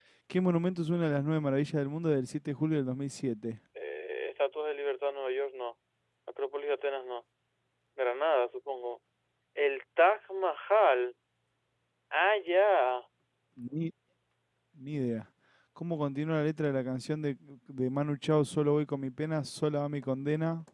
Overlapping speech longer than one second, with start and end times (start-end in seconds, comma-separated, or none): none